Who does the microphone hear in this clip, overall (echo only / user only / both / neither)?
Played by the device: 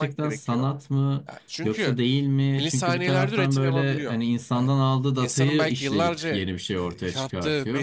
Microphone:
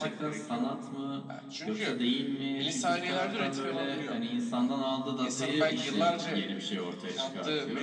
echo only